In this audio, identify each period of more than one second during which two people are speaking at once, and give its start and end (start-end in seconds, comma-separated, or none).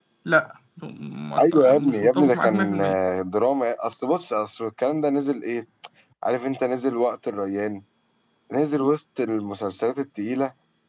1.4-3.0